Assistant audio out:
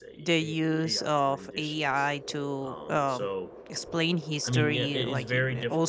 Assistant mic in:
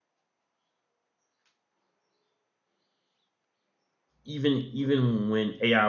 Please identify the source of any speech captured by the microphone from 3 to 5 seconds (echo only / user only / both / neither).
user only